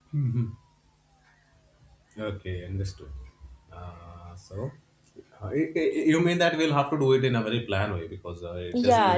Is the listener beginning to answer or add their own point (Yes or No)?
Yes